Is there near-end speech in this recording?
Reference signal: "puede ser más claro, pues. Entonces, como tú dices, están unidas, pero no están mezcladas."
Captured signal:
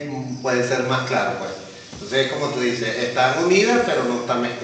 No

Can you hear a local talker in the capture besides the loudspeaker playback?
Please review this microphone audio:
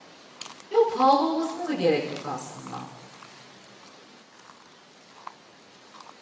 Yes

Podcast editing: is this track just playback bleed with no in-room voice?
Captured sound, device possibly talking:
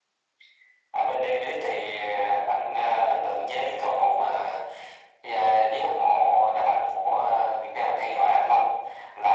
Yes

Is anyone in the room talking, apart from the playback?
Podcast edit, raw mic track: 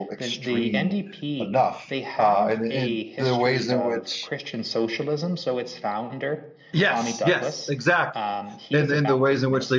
Yes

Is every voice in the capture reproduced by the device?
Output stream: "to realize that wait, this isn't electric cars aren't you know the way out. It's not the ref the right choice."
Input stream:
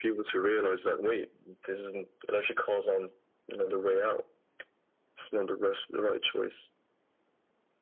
Yes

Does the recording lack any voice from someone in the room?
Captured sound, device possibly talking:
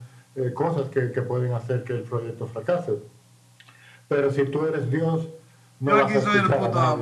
No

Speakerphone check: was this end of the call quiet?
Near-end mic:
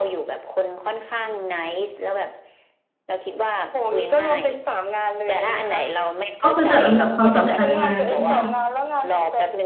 No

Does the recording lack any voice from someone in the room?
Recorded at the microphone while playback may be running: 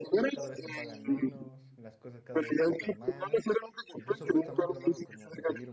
No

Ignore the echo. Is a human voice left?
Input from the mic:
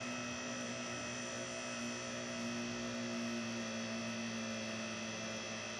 No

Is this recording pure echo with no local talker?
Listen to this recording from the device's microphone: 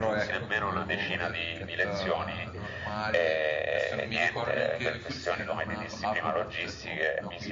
No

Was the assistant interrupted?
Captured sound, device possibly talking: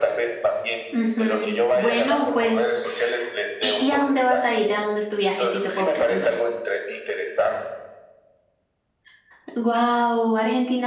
Yes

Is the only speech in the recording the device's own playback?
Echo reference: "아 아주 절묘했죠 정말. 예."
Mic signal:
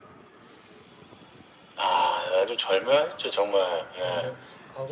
No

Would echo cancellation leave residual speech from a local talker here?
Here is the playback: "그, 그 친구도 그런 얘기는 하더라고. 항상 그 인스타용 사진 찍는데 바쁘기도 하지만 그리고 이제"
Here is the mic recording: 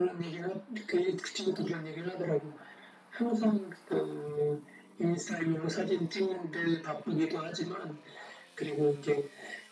No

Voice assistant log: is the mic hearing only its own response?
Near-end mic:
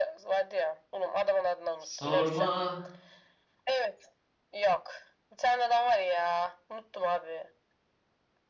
No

